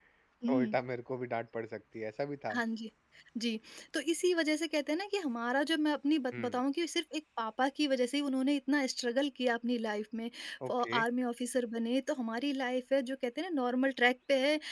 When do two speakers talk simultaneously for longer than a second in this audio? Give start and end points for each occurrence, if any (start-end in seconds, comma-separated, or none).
none